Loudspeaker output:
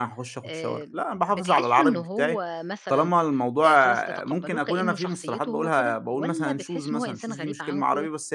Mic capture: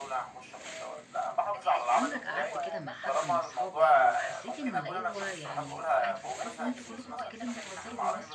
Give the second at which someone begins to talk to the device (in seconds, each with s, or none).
2.0 s